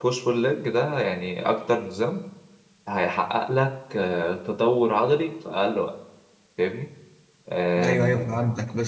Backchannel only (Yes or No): No